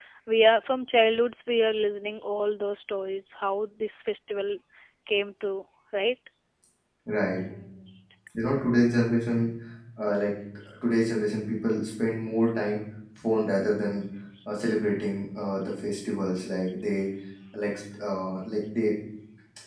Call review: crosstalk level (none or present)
none